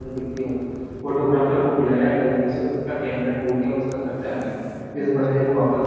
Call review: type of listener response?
listening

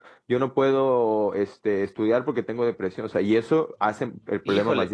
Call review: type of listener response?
taking over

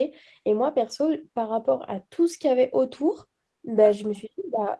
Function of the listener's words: listening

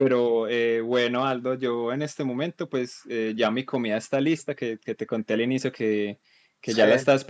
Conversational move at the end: listening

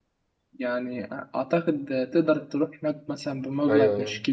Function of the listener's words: taking over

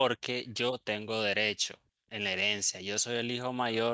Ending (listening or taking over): listening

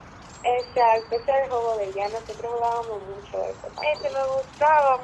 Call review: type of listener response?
taking over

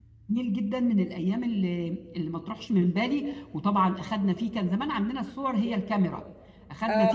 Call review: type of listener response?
taking over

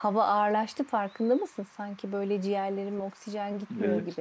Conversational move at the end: taking over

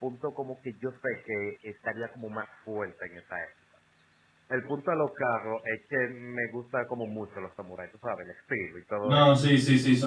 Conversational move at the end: taking over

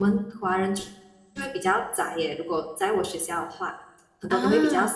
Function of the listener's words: listening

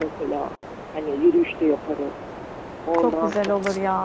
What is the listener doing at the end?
taking over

